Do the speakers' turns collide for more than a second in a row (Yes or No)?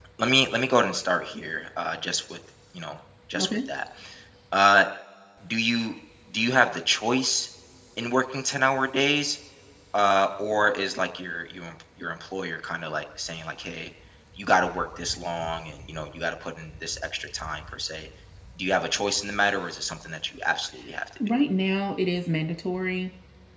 No